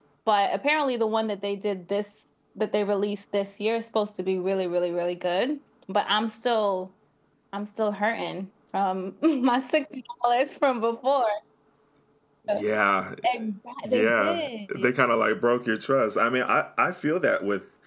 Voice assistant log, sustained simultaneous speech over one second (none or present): none